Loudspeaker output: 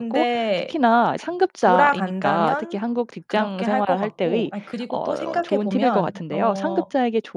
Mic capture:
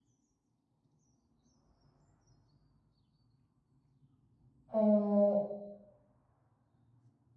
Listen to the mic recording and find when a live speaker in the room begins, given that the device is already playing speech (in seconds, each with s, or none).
4.7 s